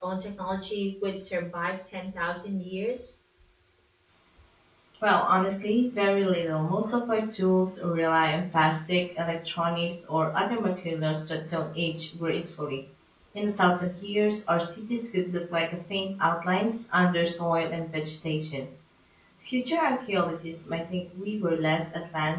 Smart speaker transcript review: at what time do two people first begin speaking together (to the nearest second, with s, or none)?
none